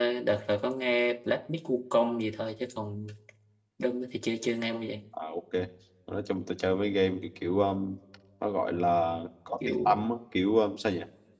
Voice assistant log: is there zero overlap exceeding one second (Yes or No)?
Yes